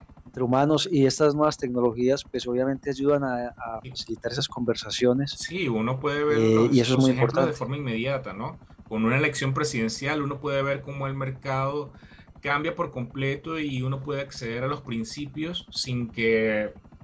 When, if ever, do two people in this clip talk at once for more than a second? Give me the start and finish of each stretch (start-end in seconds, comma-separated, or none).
6.3-7.6